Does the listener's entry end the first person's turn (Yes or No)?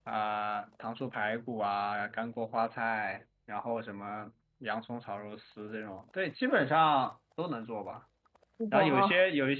No